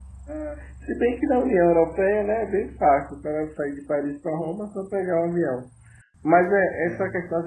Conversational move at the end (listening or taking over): listening